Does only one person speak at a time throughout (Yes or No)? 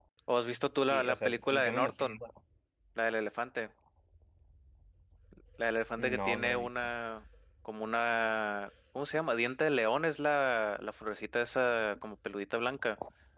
No